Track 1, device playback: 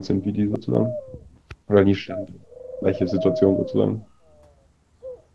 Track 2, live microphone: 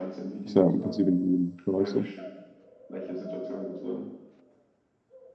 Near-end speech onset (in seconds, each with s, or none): 0.4 s